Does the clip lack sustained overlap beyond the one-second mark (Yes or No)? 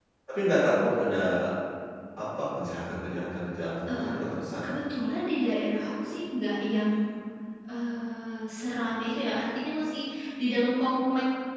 Yes